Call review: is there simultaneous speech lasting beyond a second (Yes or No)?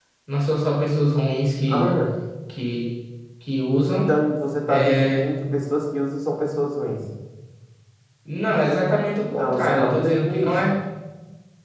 Yes